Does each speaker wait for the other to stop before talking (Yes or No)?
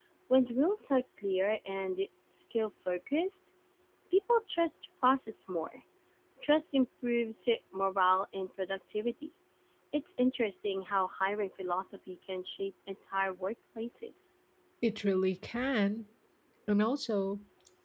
Yes